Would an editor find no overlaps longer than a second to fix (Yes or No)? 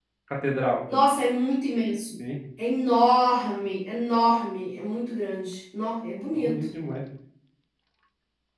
Yes